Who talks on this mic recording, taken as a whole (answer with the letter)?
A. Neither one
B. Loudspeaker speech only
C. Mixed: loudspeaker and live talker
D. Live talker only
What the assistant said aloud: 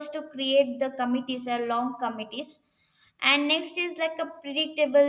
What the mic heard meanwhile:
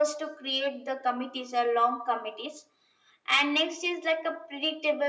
B